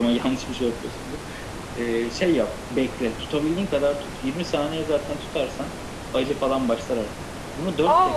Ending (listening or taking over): taking over